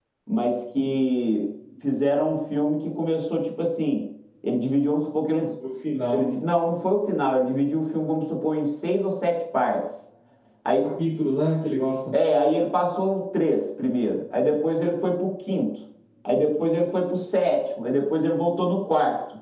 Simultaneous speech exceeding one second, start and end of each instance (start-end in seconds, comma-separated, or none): none